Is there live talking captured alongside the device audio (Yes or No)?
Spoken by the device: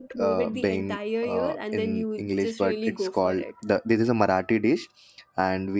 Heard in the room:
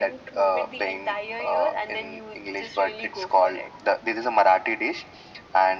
No